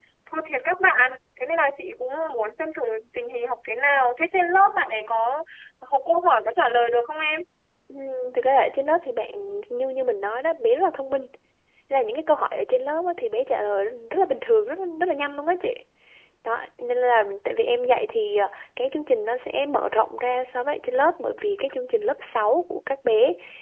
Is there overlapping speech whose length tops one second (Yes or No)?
No